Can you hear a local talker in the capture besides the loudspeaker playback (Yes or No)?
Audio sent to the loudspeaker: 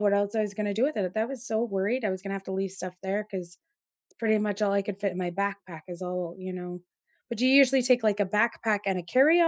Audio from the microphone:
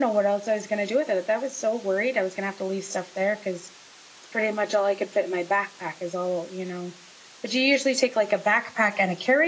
No